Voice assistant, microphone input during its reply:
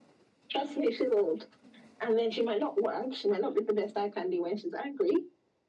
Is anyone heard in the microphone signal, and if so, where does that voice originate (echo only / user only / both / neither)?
echo only